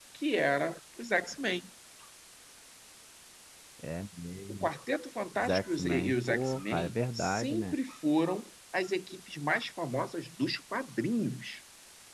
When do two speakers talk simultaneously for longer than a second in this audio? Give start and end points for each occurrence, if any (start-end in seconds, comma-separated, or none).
5.3-7.8